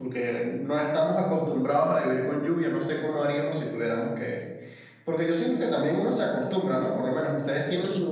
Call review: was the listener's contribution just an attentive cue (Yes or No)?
Yes